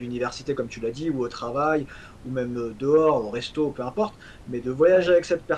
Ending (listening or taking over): listening